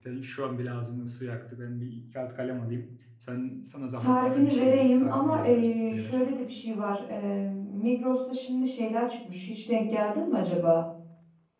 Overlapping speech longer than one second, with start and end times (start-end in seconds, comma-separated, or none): 4.0-6.2